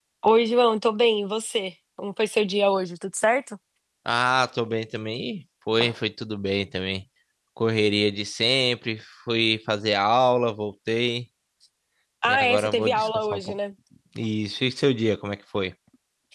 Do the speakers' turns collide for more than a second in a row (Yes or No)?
Yes